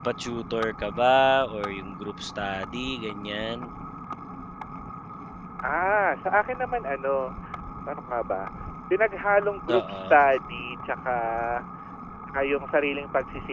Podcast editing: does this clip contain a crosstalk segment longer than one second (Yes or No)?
No